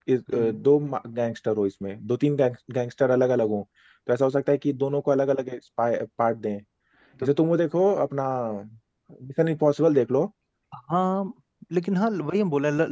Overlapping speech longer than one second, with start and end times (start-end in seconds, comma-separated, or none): none